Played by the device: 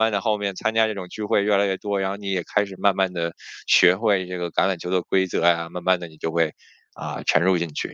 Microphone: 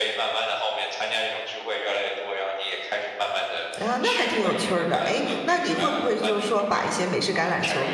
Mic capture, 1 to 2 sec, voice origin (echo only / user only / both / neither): echo only